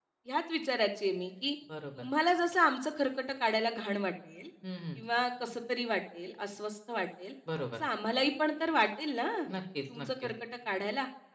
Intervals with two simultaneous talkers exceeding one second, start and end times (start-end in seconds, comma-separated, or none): none